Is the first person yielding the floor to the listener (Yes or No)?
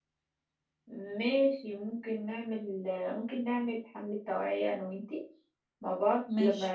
No